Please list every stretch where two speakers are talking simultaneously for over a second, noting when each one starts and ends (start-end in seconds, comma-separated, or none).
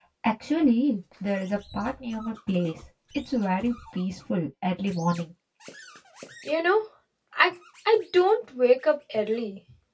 none